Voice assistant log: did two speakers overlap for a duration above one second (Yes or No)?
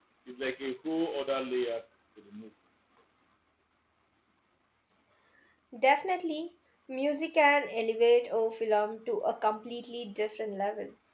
No